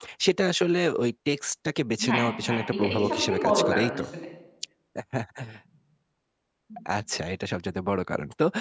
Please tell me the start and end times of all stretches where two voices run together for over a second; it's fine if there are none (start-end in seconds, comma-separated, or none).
2.1-4.0